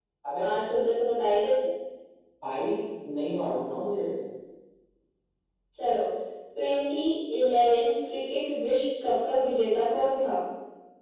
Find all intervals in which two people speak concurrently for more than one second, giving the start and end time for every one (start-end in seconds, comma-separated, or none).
none